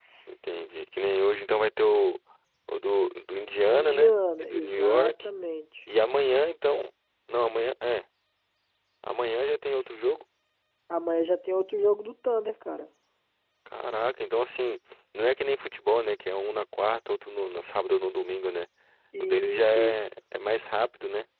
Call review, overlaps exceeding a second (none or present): present